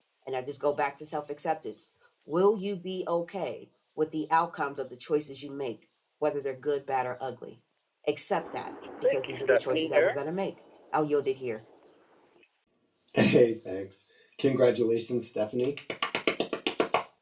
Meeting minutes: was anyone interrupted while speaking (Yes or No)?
Yes